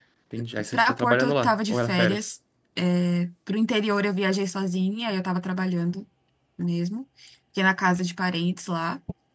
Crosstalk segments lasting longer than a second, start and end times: 0.7-2.3

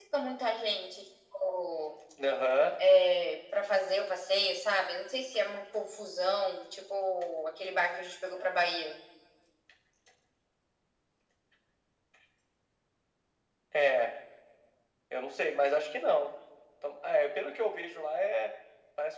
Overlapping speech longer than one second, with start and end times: none

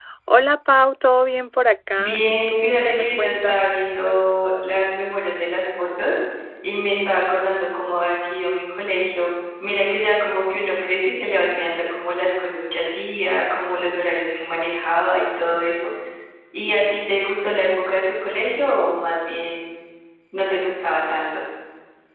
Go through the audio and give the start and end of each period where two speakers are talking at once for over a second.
2.0-4.0

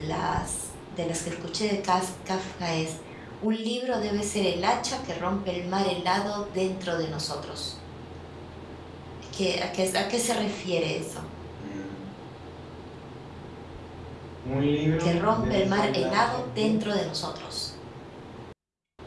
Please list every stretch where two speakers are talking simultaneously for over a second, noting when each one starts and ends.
15.0-16.8

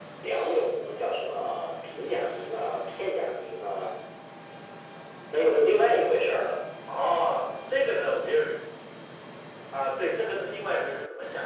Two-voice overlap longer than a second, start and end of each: none

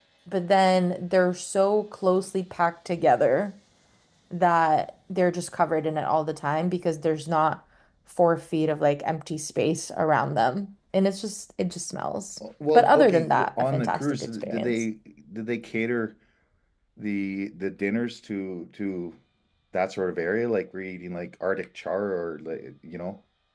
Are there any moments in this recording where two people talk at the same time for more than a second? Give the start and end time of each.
12.7-14.8

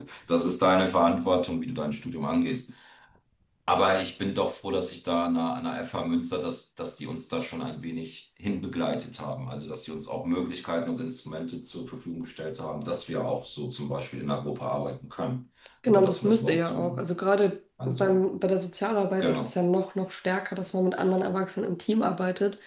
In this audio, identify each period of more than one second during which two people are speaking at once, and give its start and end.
15.9-17.1

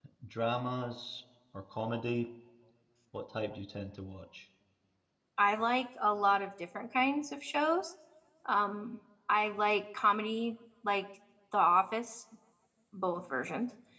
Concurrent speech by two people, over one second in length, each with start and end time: none

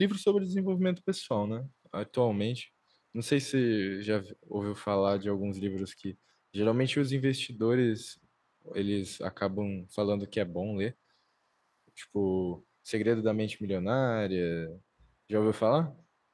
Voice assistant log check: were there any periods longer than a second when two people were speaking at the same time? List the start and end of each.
none

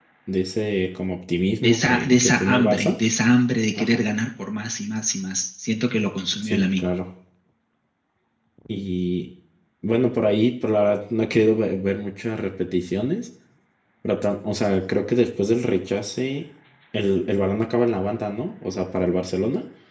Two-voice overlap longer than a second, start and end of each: 1.6-2.9

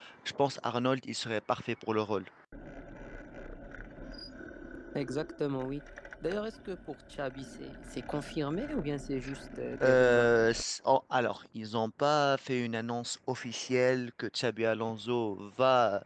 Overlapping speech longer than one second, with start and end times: none

